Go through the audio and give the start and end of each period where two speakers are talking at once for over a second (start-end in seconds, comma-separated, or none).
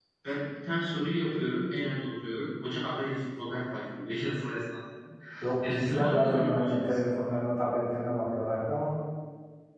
5.7-7.0